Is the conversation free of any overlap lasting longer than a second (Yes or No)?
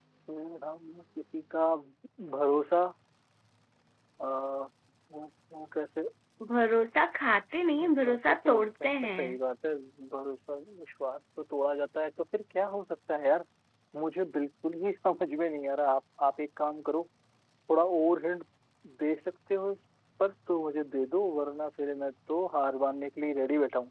No